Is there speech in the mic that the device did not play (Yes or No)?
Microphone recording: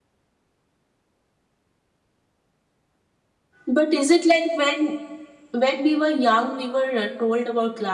Yes